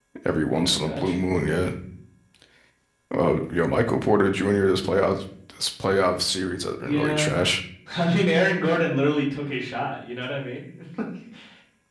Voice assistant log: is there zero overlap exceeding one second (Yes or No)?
Yes